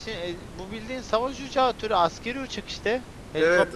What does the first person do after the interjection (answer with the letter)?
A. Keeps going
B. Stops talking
B